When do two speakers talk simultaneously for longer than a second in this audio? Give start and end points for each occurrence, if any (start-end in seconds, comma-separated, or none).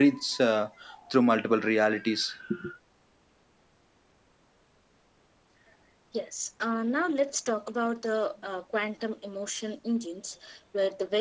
none